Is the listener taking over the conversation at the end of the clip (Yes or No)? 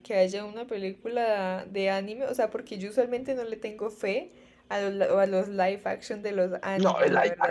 Yes